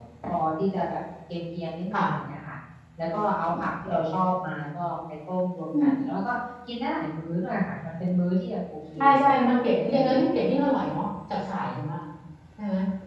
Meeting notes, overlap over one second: none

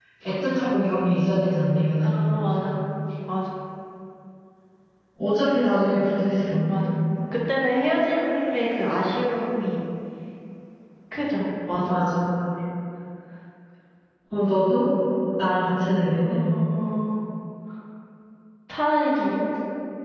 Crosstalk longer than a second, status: none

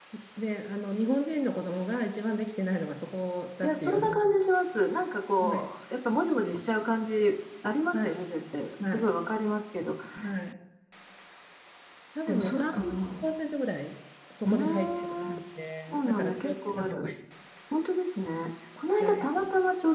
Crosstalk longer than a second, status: present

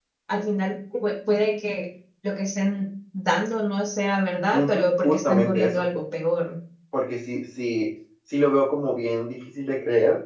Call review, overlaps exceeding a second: present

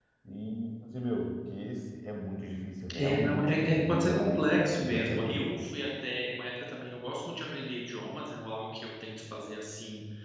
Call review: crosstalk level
present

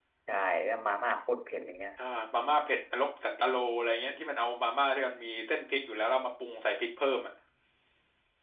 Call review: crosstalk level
none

